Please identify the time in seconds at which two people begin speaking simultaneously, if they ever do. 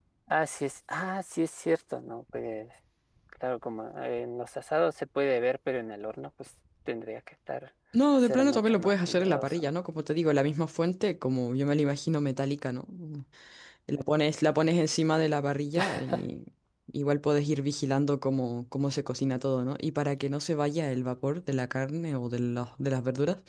8 s

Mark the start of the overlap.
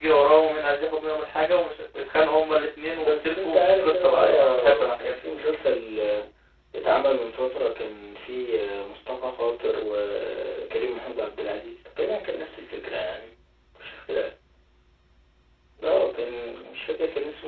3 s

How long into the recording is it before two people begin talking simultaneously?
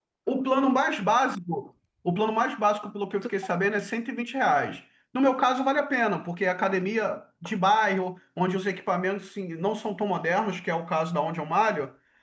none

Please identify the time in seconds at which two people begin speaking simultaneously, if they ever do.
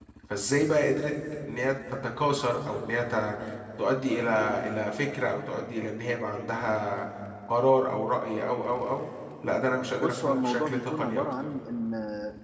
10 s

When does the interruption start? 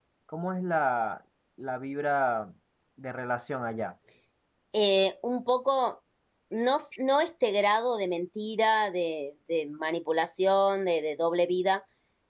none

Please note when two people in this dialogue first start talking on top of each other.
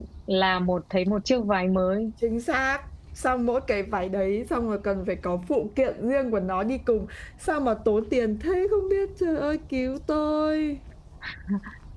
none

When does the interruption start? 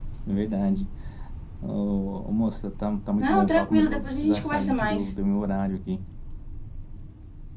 3 s

